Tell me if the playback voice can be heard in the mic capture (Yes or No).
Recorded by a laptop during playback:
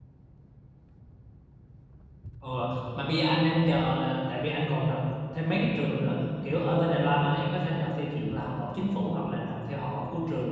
No